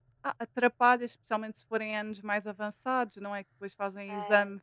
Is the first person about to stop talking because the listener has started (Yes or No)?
No